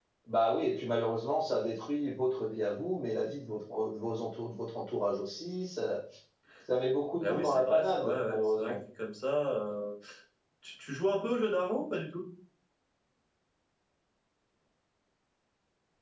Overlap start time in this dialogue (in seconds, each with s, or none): 7.2 s